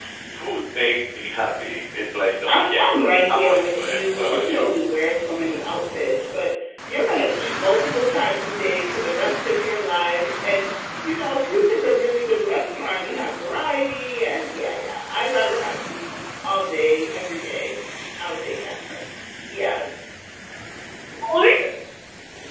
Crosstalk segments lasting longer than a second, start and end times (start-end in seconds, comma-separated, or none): 3.3-4.7